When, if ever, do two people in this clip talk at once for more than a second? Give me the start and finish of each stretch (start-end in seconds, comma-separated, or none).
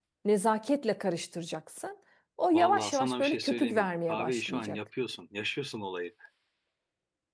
2.5-4.8